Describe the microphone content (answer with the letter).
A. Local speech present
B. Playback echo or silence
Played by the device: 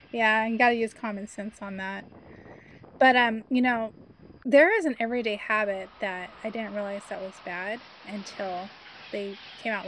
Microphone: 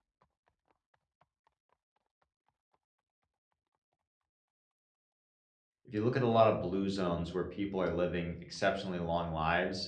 A